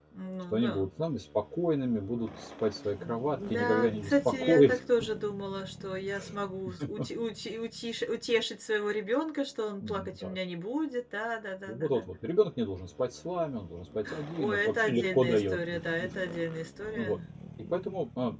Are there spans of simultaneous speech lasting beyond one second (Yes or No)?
Yes